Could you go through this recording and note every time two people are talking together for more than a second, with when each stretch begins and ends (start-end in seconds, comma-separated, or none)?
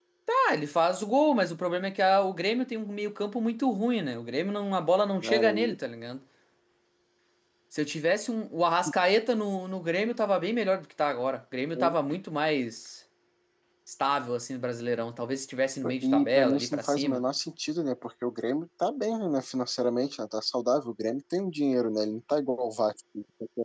16.0-17.2